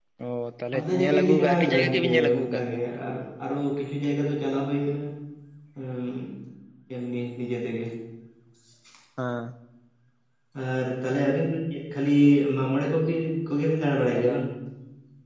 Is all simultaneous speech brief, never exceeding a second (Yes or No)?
No